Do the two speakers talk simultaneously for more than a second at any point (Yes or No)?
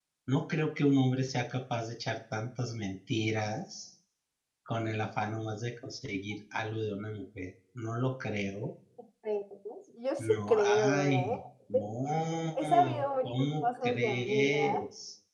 Yes